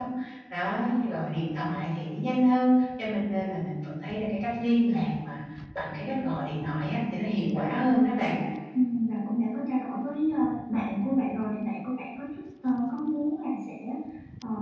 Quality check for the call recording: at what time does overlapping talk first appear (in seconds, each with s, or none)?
none